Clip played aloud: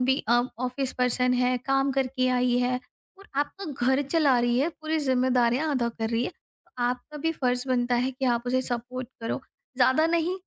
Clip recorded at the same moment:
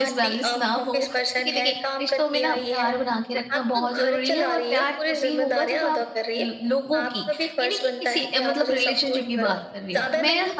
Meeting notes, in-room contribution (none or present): present